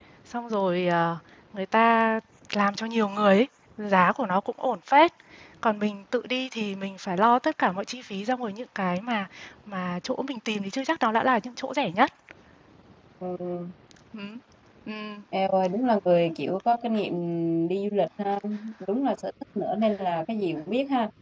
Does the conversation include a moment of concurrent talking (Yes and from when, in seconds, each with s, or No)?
No